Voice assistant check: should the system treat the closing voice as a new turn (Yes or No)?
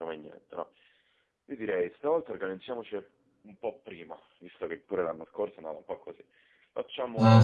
Yes